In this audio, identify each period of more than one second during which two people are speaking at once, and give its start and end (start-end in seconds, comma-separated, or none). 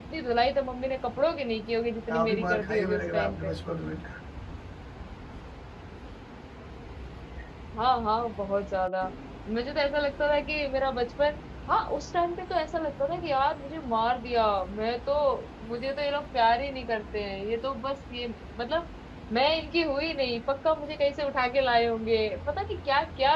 2.1-3.5